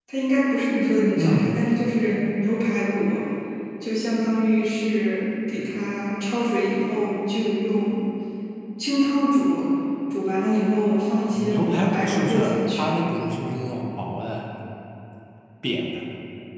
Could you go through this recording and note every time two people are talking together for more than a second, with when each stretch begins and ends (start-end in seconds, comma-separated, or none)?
11.3-12.9